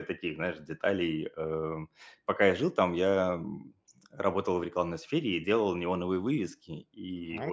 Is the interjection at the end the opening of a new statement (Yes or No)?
No